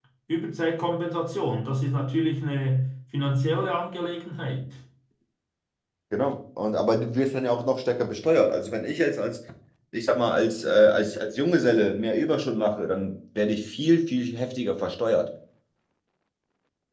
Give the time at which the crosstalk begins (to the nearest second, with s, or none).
none